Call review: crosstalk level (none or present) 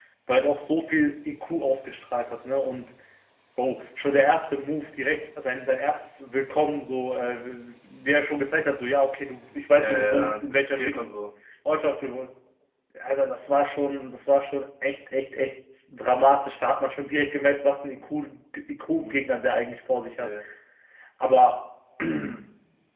present